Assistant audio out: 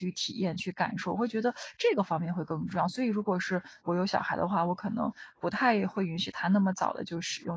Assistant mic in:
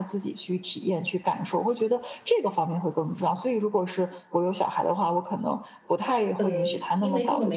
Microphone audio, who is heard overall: both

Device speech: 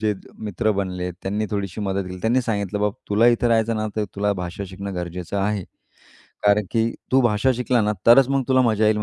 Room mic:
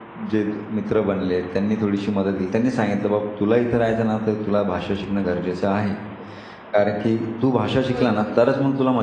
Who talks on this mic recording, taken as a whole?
both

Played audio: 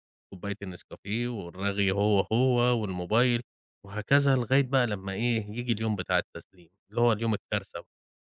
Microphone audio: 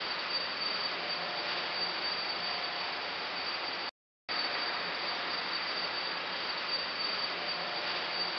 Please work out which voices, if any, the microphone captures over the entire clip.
neither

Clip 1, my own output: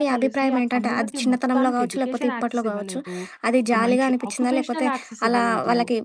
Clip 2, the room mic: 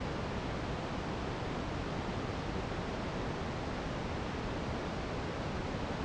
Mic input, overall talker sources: neither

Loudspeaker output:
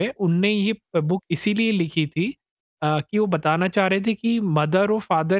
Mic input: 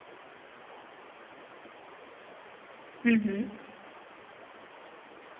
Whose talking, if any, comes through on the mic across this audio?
user only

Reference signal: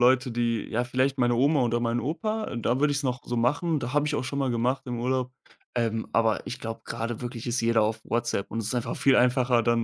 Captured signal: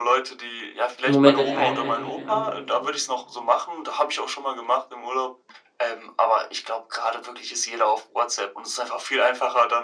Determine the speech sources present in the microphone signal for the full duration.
both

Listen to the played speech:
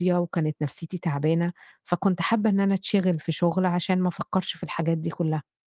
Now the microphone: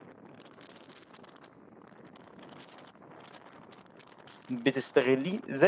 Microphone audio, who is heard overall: user only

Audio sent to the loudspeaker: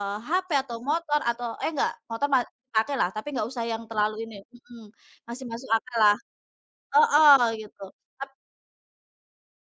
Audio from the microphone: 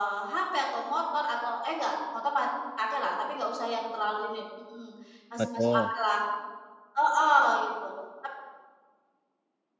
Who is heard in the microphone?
both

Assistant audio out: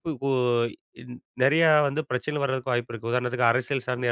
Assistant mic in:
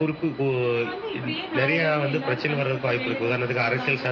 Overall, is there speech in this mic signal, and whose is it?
both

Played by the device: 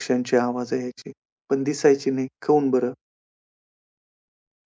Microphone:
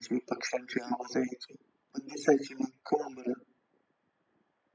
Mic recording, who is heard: echo only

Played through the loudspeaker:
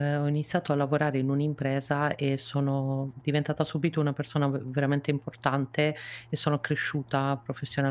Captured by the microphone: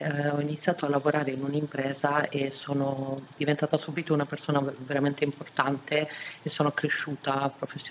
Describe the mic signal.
echo only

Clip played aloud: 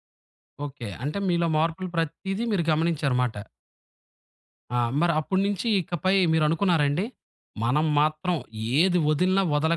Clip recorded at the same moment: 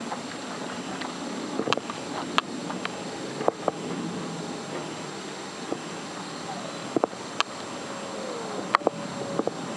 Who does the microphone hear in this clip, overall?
neither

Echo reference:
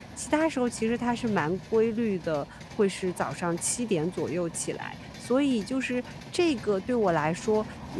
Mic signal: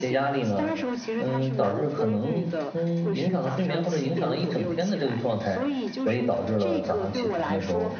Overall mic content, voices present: both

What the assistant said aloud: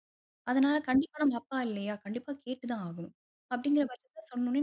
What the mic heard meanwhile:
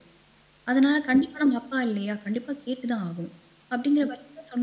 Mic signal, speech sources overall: echo only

